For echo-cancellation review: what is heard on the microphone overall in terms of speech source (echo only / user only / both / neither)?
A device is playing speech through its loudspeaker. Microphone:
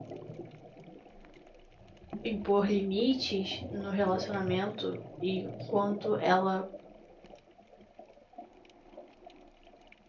user only